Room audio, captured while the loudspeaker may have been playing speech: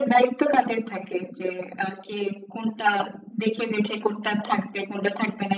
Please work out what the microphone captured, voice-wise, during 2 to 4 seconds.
echo only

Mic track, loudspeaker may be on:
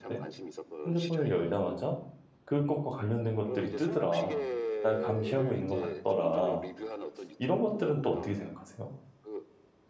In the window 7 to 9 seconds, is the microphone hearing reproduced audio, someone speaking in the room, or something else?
both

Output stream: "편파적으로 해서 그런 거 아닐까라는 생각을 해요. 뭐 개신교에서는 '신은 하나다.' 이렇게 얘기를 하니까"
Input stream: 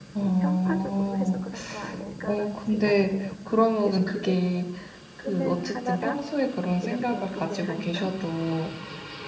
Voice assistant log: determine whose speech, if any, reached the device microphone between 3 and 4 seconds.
both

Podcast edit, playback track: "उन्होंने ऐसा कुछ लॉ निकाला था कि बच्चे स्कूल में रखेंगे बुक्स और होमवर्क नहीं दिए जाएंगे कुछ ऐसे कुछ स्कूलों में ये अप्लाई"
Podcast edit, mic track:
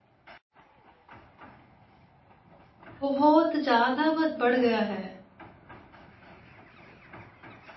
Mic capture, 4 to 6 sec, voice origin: user only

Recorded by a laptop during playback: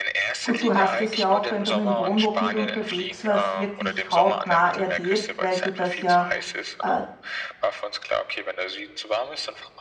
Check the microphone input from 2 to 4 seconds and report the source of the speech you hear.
both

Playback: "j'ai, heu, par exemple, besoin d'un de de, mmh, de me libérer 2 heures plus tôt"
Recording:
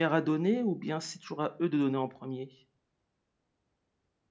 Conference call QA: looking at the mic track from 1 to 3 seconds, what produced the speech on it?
user only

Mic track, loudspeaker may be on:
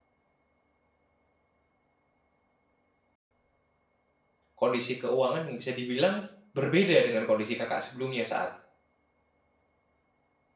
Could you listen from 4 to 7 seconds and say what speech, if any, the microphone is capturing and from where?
user only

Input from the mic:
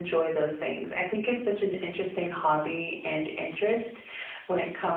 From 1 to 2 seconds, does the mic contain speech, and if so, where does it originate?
echo only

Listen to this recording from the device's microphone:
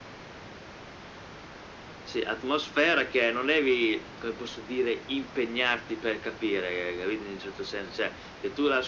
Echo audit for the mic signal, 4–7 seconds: echo only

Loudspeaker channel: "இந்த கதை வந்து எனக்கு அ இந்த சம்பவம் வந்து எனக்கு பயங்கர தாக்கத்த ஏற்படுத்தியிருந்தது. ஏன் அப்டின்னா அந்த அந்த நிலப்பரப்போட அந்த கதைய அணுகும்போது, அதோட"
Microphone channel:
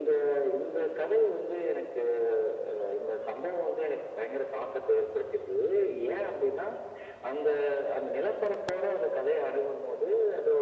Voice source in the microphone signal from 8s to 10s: echo only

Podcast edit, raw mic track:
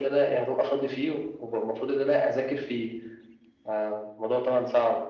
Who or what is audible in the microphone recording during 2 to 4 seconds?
echo only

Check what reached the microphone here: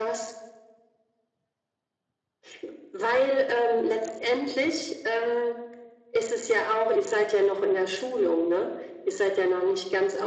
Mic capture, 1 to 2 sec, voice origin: neither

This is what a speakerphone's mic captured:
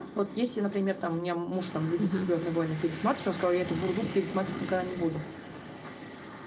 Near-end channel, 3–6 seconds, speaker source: echo only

